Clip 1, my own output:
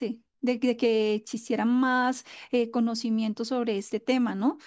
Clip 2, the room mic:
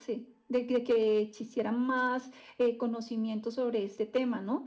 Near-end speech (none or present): none